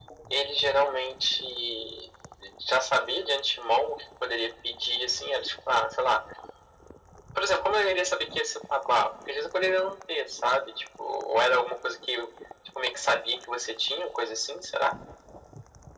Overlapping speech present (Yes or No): No